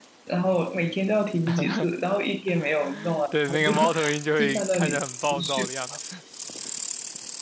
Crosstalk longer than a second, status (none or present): present